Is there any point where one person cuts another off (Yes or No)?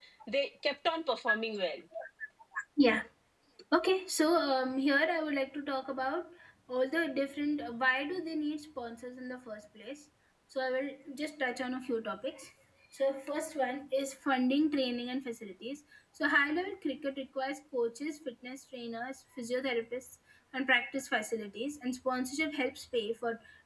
No